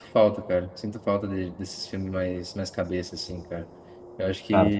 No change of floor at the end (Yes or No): Yes